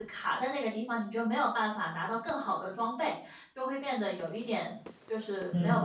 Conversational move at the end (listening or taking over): taking over